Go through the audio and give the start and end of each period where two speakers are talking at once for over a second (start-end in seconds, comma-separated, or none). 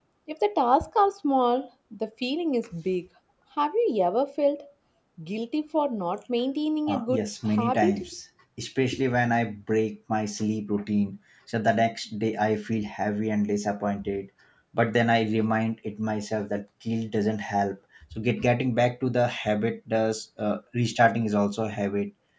6.9-8.1